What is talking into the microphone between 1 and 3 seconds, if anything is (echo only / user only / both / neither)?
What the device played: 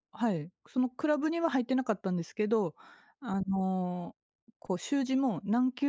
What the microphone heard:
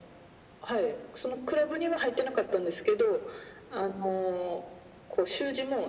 echo only